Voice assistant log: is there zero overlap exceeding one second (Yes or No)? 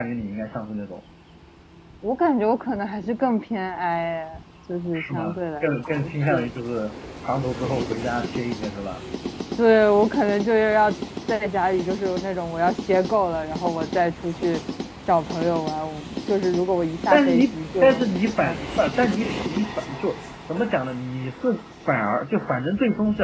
No